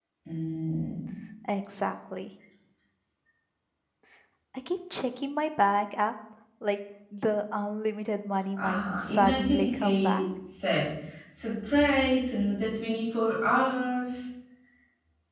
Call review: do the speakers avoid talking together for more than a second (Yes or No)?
No